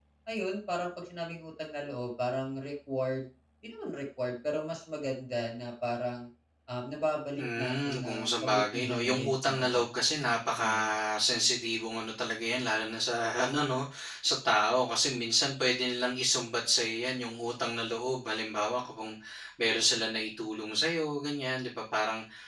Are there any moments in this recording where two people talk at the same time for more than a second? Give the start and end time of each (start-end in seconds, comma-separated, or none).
7.4-9.8